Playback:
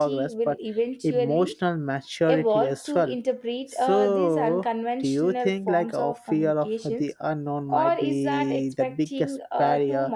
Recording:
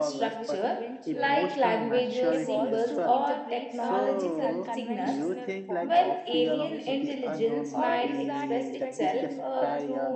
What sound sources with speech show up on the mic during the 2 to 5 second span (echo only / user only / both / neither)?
both